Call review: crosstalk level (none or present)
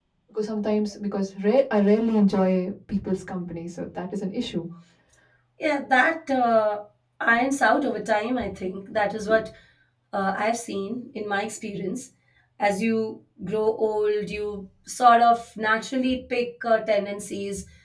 none